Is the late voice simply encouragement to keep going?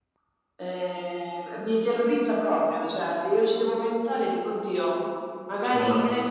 Yes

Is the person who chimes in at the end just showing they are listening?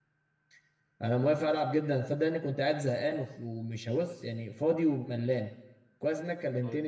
Yes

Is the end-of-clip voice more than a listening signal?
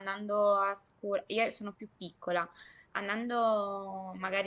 No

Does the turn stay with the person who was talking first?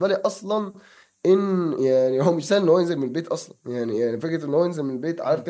Yes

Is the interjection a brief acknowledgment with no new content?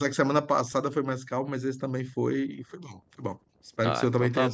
No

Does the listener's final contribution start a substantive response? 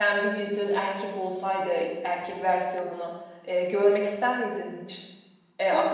Yes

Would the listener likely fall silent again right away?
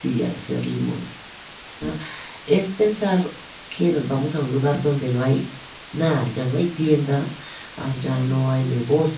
Yes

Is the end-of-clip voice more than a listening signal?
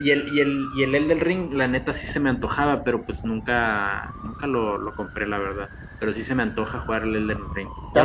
Yes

